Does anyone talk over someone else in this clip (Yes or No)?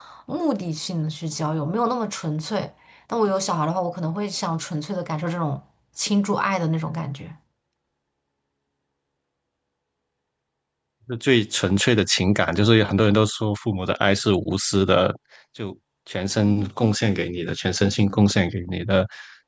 No